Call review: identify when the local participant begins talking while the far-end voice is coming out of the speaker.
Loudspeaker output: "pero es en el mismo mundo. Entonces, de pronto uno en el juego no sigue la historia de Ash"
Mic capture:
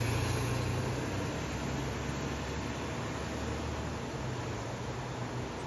none

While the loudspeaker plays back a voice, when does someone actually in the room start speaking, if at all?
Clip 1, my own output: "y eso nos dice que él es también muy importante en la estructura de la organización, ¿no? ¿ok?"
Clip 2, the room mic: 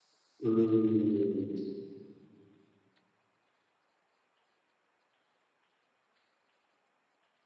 0.4 s

